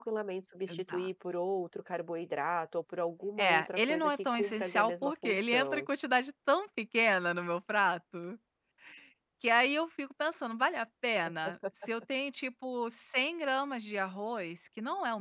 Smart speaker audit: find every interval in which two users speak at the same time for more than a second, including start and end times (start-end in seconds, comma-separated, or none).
3.4-5.9